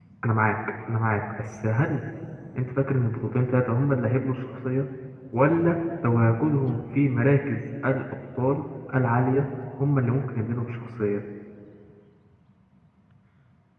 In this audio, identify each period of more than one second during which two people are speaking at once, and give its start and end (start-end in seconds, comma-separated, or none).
none